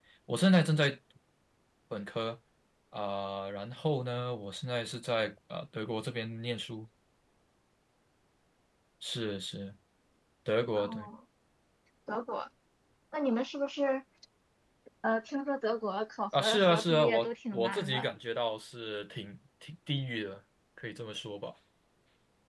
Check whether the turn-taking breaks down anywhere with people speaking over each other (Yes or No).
Yes